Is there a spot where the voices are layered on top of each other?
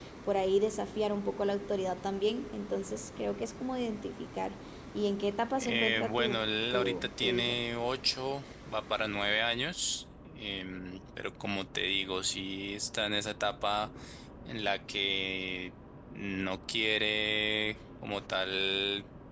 Yes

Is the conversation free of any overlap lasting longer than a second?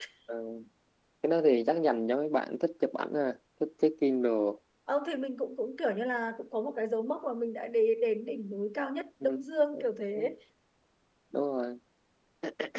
Yes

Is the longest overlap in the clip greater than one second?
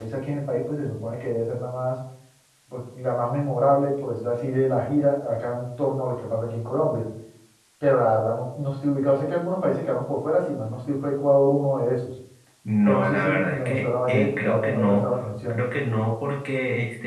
Yes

